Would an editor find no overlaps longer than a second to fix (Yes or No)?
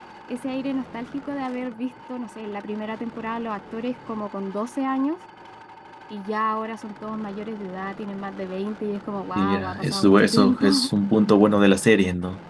No